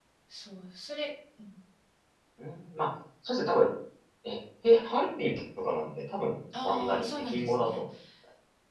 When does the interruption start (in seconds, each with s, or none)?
6.5 s